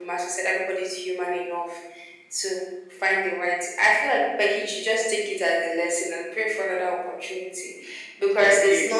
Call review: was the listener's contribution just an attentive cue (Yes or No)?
No